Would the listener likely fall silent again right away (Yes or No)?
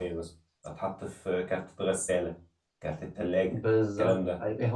No